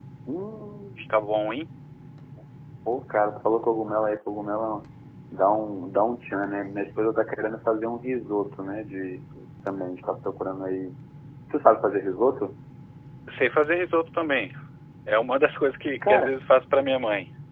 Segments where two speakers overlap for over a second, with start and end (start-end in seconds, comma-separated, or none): none